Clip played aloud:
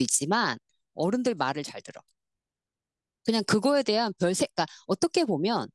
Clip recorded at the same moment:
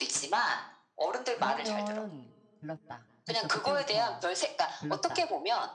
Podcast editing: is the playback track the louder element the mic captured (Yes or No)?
Yes